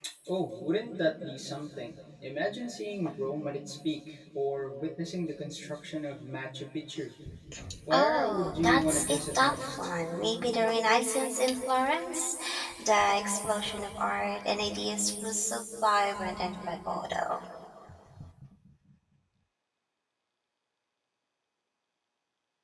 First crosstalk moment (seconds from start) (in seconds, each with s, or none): 7.9 s